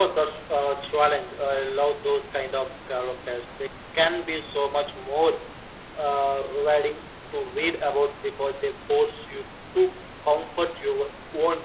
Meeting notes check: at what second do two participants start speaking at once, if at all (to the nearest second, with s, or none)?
none